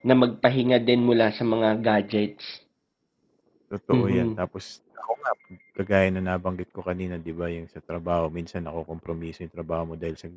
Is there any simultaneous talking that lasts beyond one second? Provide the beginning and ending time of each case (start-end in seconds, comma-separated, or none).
none